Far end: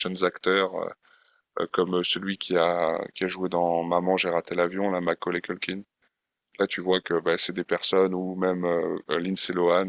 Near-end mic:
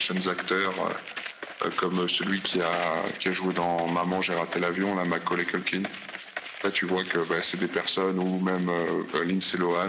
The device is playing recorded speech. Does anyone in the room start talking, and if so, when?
none

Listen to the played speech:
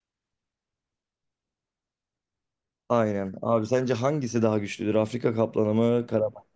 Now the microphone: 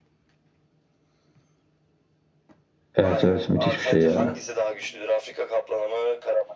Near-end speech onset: 3 s

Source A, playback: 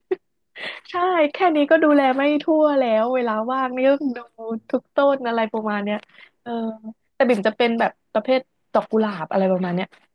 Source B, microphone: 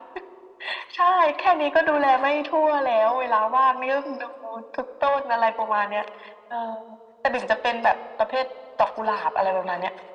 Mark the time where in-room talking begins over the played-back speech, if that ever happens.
none

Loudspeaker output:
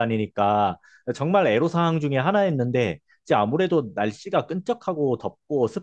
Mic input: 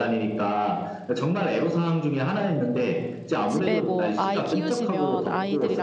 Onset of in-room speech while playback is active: 3 s

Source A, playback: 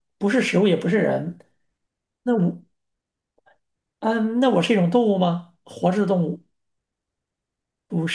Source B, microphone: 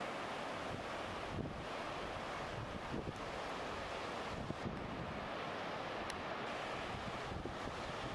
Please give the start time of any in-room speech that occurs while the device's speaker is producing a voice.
none

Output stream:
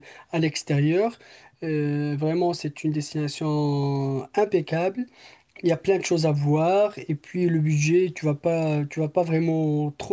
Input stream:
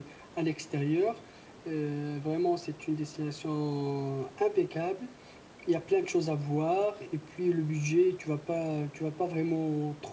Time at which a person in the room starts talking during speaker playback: none

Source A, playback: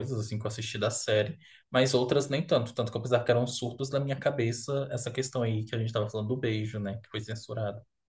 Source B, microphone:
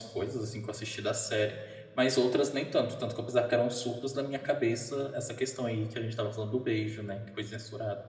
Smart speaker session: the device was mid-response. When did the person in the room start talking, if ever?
none

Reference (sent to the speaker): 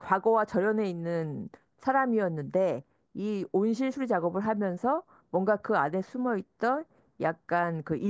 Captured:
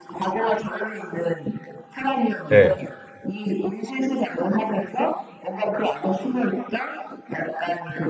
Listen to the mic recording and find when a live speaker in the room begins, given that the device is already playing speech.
2 s

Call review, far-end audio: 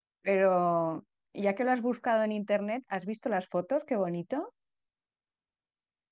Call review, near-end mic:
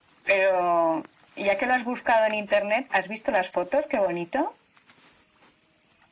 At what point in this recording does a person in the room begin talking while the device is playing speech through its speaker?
none

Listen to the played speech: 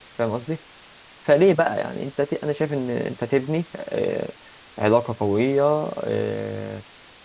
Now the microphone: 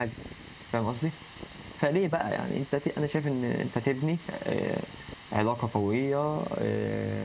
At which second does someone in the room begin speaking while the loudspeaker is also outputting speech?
none

